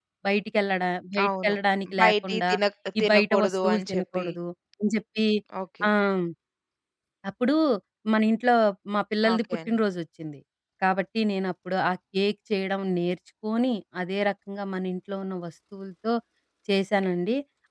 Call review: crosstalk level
present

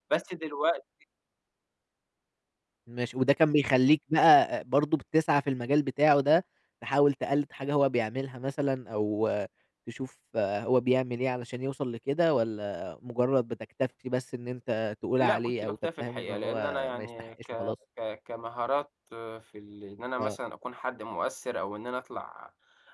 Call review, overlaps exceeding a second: present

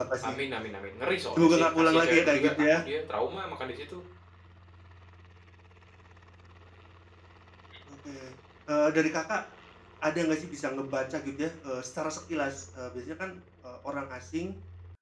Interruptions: present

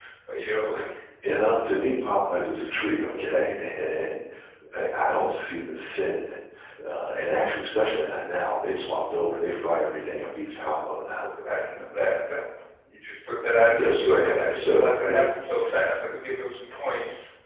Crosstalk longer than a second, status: present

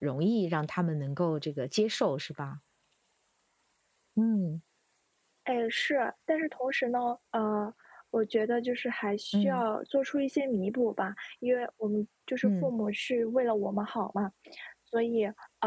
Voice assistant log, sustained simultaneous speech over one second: none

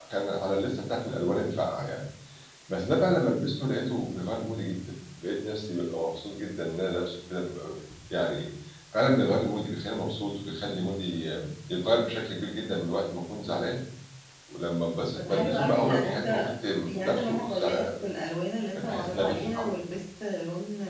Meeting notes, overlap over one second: present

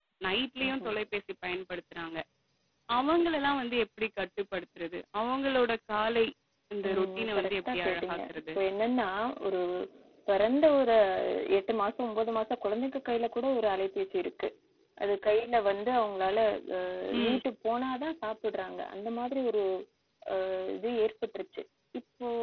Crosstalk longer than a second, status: present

